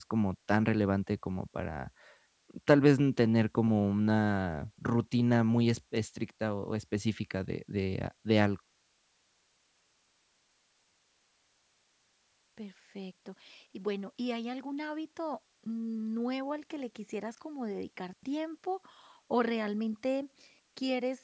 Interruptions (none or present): none